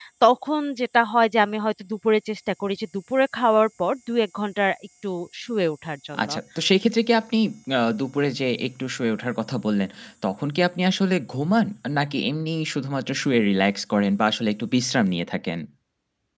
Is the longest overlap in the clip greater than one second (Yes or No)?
No